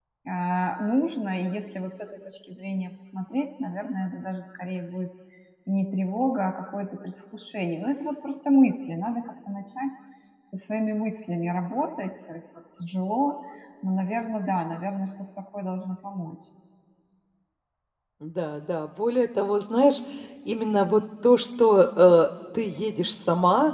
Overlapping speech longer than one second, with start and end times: none

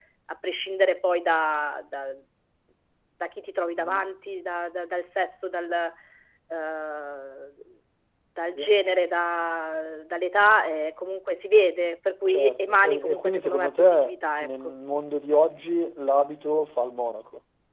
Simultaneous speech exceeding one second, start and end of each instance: 12.3-14.7

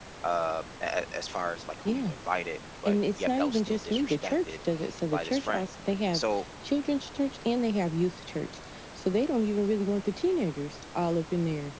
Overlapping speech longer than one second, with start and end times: 2.8-4.6

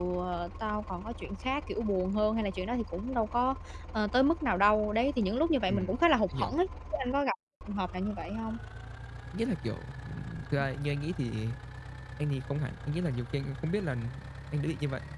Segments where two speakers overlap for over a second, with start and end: none

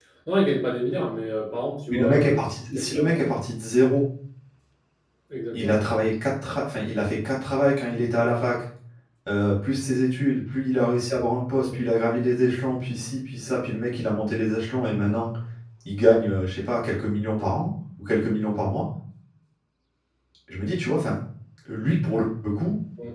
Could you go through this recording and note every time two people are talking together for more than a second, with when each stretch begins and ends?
1.9-3.4

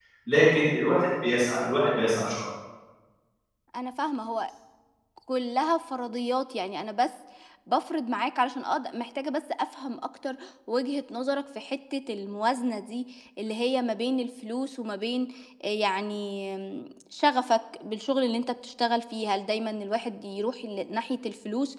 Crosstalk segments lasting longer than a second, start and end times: none

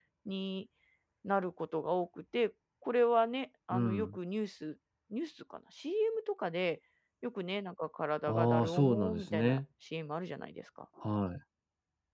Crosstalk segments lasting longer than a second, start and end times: 8.2-9.6

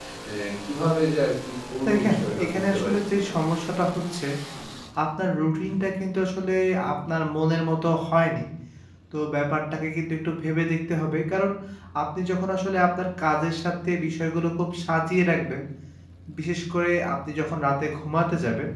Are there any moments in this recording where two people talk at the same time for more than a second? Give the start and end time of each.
1.9-3.3

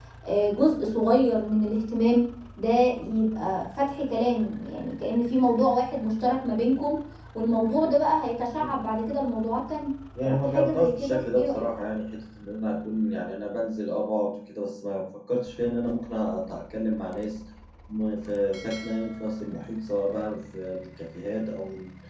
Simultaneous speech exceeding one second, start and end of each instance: 10.2-11.7

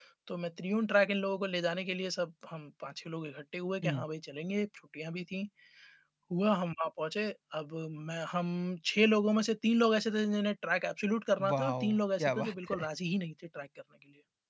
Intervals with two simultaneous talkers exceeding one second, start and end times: 11.5-12.9

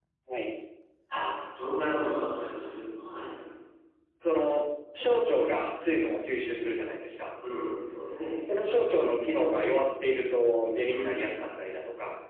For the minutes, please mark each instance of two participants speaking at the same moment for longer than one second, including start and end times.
none

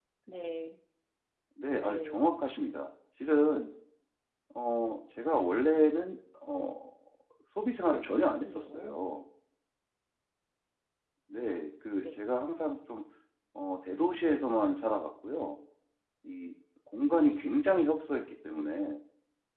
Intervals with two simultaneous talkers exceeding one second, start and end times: 7.9-9.1

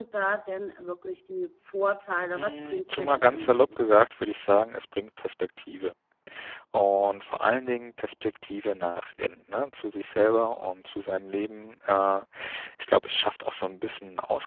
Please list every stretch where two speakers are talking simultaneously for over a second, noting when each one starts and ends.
2.3-3.6

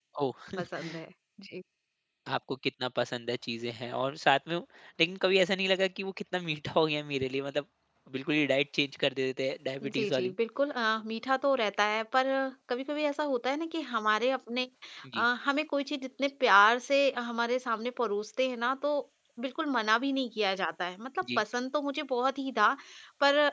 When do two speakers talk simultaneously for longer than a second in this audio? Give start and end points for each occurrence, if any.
none

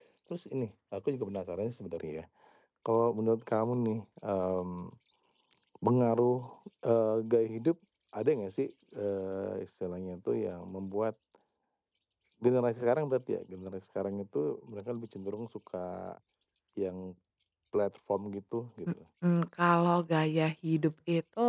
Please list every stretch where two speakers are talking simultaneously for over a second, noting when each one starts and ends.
none

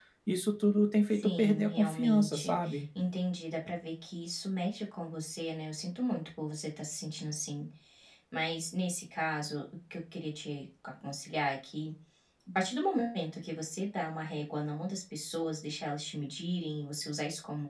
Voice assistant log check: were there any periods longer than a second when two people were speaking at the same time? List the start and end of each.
1.1-2.6

